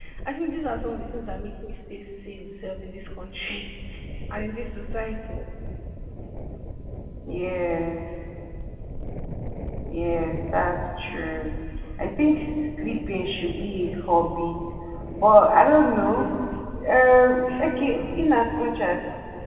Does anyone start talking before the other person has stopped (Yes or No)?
No